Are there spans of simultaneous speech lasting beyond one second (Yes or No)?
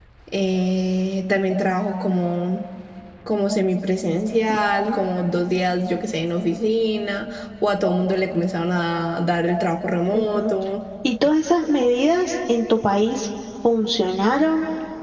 No